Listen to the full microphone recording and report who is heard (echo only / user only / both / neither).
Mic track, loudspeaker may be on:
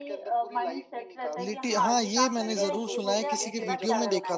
both